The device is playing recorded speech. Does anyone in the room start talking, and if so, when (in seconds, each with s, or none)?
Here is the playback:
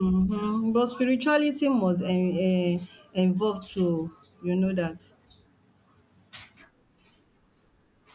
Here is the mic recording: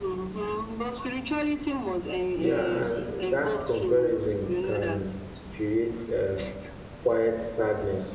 2.3 s